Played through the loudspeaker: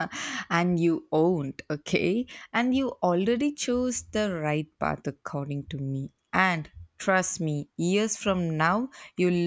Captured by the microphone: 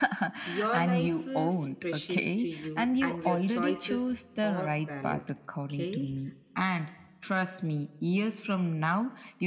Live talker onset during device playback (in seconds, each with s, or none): 0.4 s